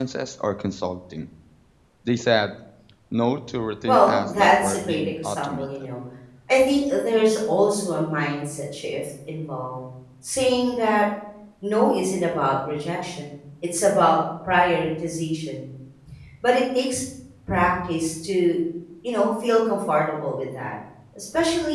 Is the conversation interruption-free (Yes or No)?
No